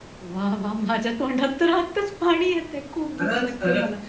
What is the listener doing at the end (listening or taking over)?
taking over